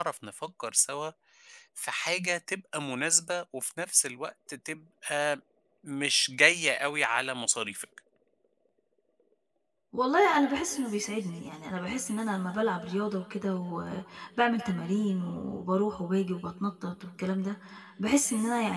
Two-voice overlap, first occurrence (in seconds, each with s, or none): none